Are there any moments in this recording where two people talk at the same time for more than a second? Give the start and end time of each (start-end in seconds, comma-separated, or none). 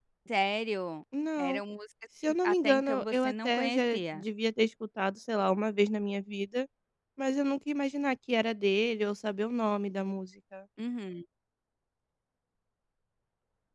2.2-4.2